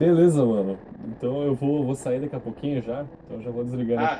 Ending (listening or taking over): taking over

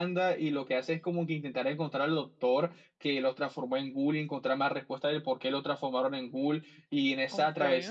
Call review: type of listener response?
listening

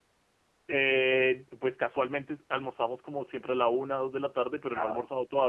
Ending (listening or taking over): listening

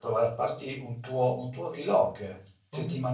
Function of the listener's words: listening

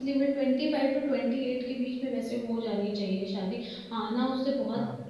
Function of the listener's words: listening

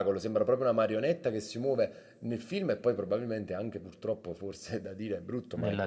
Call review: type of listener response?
listening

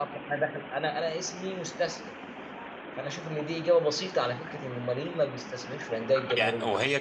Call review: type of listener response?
taking over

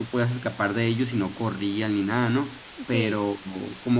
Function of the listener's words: listening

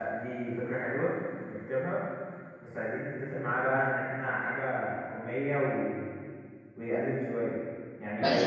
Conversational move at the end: taking over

